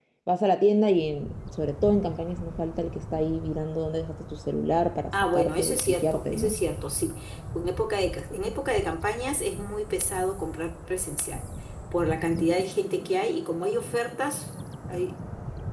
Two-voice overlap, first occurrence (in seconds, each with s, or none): 5.1 s